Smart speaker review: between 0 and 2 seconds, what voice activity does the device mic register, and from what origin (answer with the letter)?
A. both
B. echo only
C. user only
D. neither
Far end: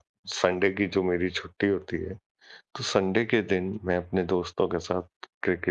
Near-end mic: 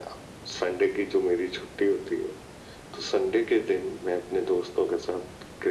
B